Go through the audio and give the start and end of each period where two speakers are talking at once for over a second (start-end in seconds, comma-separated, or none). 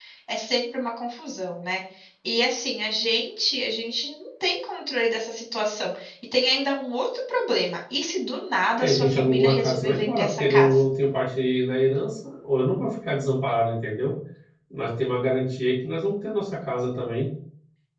8.8-10.8